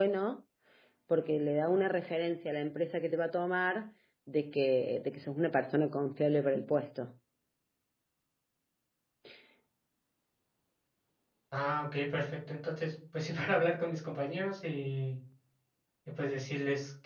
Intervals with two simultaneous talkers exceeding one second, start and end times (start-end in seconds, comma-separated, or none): none